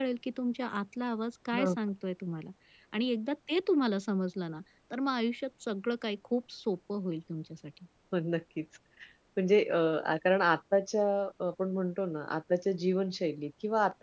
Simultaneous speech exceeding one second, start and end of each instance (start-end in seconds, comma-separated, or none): none